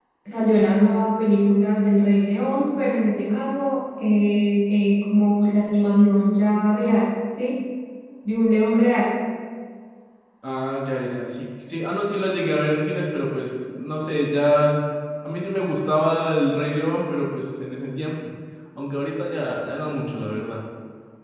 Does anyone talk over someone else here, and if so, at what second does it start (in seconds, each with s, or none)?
none